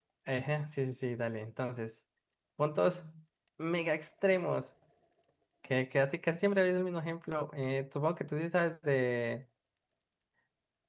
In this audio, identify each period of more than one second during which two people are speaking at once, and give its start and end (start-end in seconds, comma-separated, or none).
none